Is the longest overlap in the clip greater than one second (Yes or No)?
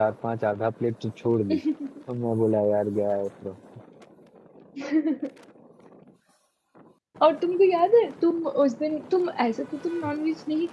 No